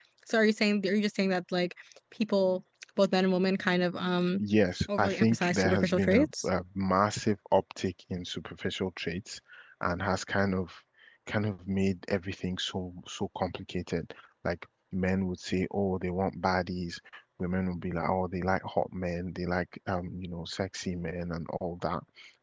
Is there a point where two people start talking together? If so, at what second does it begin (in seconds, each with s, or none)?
5.0 s